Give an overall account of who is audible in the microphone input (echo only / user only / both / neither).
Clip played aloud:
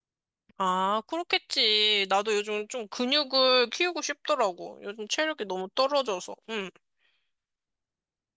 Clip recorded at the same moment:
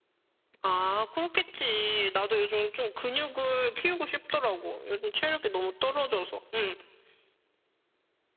echo only